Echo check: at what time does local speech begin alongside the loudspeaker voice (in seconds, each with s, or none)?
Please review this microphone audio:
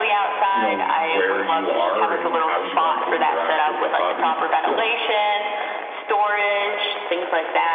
0.5 s